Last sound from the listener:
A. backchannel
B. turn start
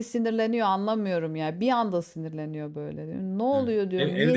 B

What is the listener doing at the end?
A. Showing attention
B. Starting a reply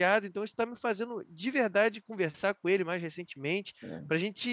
A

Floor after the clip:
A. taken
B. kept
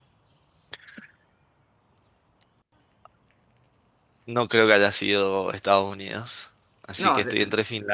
B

